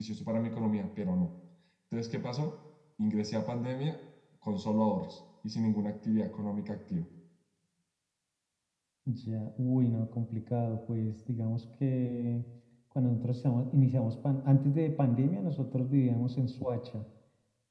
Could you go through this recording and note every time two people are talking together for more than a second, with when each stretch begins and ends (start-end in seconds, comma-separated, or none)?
none